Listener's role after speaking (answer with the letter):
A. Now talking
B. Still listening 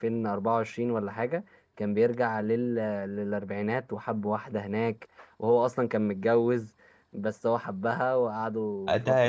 A